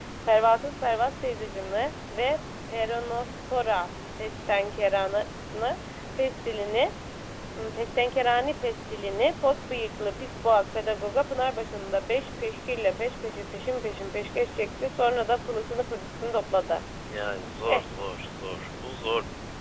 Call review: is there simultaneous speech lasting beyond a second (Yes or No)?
No